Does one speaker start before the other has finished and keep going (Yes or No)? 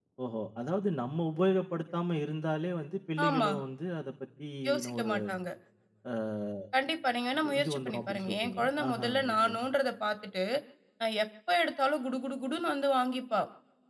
Yes